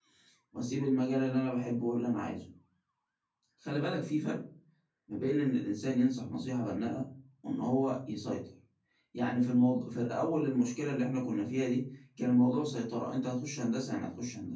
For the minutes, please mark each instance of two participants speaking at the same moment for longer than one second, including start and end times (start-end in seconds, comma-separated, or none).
none